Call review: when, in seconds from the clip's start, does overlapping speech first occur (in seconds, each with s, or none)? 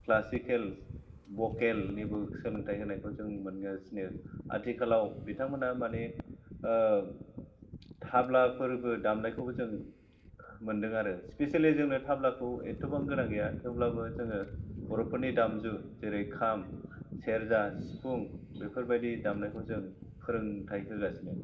none